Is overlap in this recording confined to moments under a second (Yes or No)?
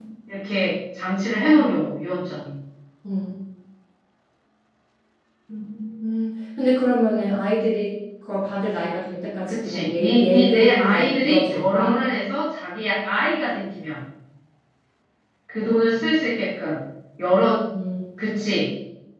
No